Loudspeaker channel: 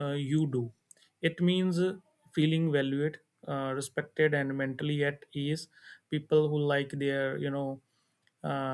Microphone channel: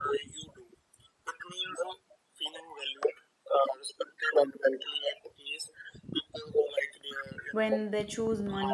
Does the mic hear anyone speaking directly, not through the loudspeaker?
Yes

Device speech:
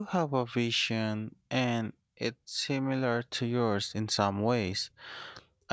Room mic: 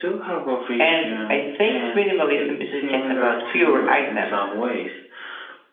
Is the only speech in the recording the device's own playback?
No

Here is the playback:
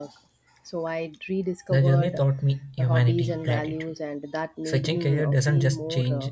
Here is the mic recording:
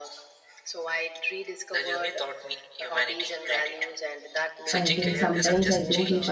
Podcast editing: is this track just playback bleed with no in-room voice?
No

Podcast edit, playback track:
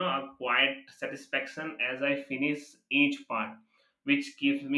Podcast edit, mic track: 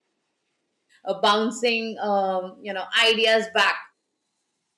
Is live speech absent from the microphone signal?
No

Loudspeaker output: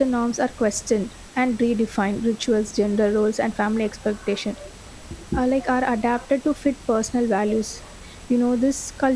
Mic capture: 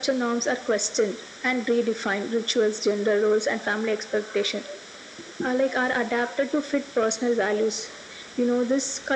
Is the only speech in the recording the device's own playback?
Yes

